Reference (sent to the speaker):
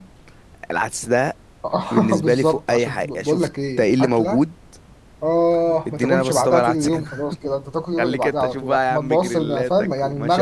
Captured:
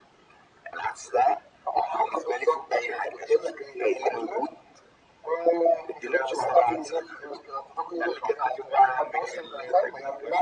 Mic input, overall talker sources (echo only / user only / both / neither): echo only